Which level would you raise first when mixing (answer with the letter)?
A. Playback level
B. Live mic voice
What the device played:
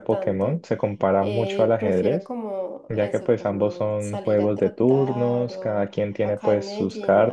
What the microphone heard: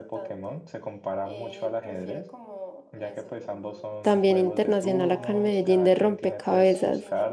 A